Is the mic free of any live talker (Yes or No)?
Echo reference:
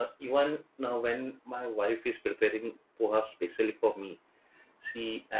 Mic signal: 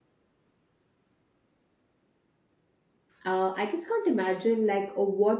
No